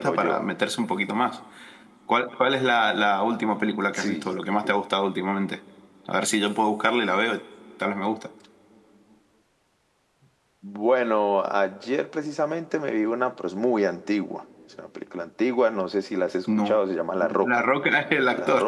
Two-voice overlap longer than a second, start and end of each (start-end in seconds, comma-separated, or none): none